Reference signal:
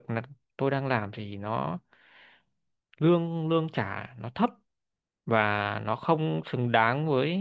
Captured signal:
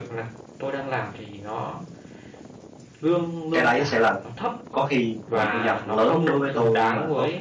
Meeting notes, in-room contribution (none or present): present